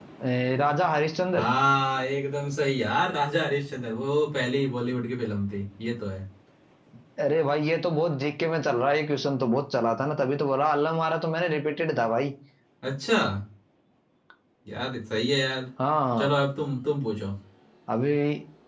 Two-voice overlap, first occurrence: none

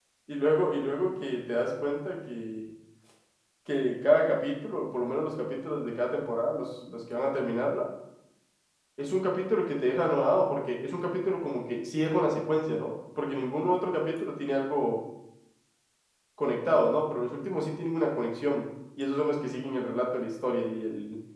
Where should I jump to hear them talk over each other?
none

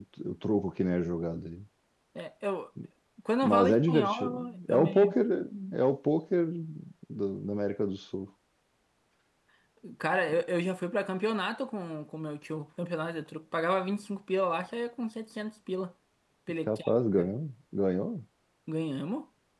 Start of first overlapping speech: 3.4 s

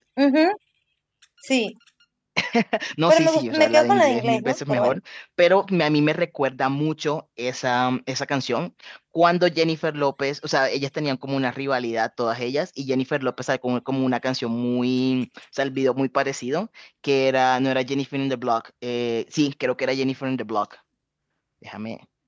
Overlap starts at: 3.1 s

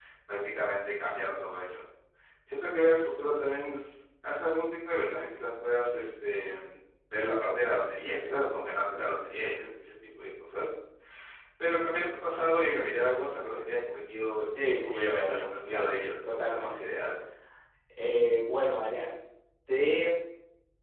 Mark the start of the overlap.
14.5 s

